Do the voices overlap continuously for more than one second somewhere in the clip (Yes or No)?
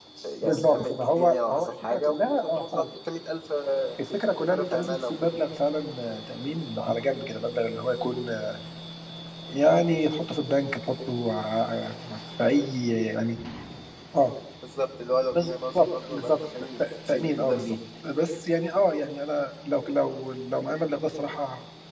Yes